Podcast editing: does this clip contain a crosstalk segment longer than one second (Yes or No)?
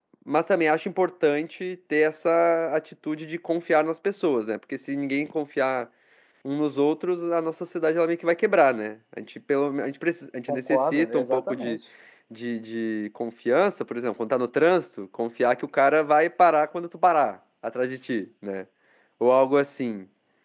Yes